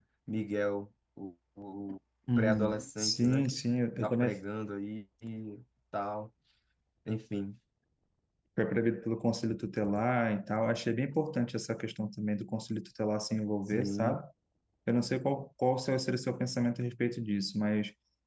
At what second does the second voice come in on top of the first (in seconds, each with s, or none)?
2.4 s